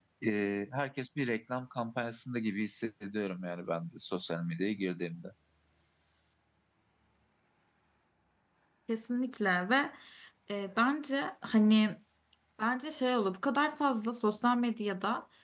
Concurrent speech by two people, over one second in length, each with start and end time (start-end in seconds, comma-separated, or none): none